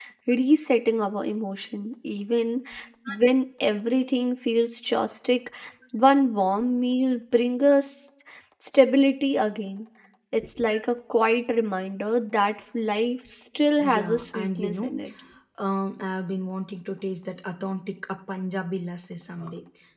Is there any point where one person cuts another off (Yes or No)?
Yes